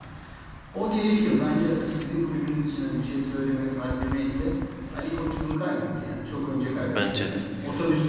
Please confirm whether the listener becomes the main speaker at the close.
No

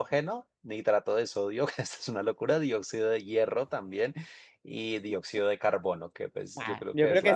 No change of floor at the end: No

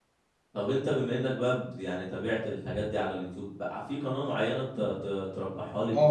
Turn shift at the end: Yes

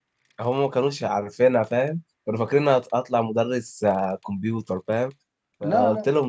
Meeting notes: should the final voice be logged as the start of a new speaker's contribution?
No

